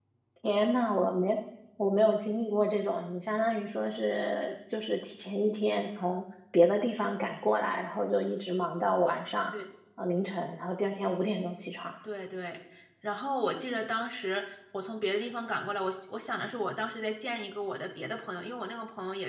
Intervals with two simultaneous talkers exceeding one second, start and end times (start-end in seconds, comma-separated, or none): none